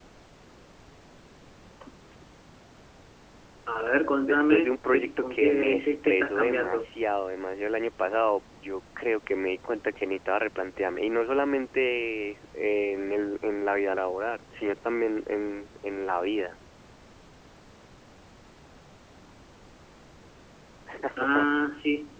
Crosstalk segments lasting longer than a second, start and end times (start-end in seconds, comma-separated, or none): 4.2-6.8